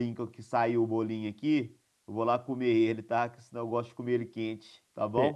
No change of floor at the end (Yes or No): No